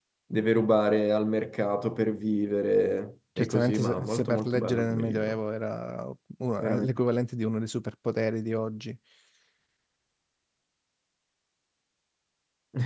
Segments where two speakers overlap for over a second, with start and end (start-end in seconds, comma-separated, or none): 3.4-5.4